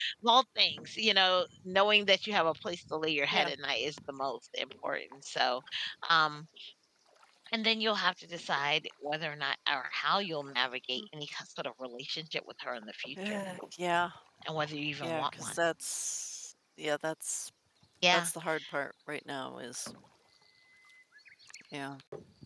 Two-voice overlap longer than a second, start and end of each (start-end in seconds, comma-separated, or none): none